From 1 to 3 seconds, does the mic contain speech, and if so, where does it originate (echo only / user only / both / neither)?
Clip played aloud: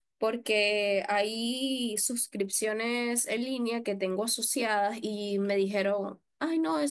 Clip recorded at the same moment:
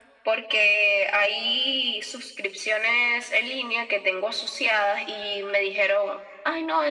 echo only